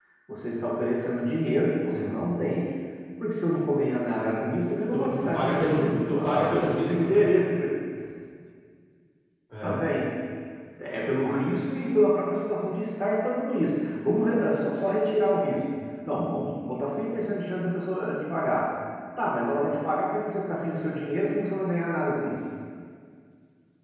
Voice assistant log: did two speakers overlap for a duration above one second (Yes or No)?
Yes